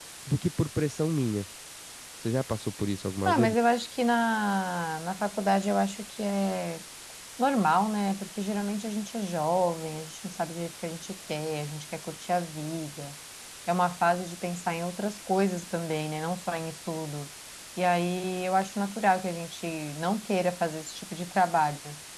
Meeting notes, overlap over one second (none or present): none